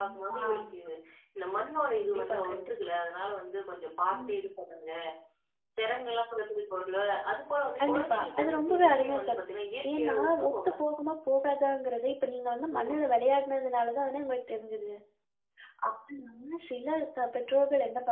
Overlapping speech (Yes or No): Yes